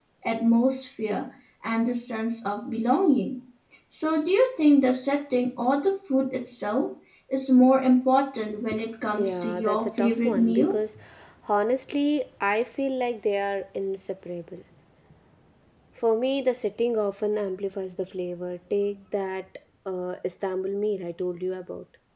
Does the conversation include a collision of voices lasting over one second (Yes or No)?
Yes